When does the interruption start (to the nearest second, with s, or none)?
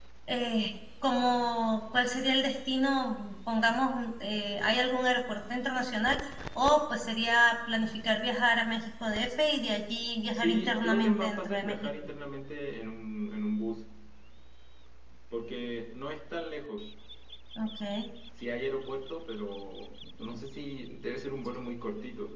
10 s